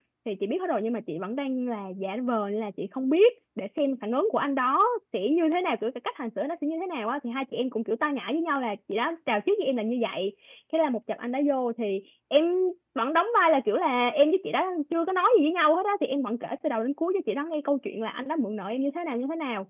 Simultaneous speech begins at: none

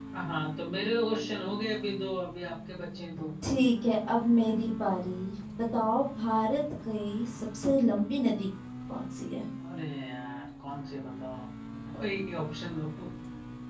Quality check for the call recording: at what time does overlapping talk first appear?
none

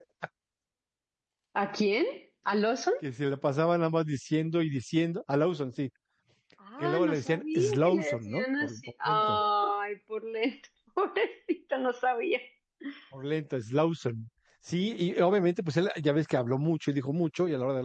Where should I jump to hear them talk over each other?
7 s

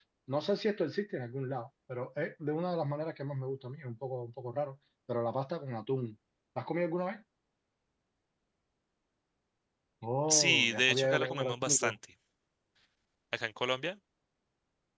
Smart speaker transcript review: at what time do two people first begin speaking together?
10 s

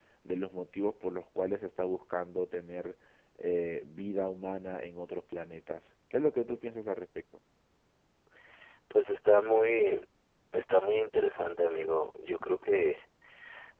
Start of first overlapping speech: none

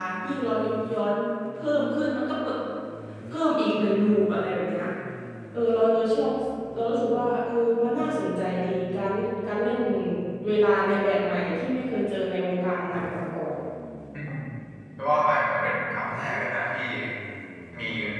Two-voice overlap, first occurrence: none

